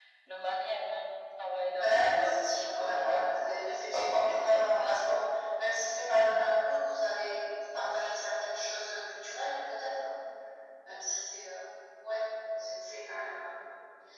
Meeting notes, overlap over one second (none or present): present